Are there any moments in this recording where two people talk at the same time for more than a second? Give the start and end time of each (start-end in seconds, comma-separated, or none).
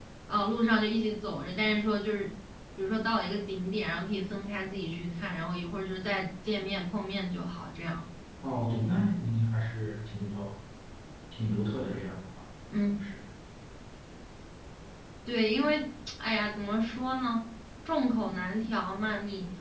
none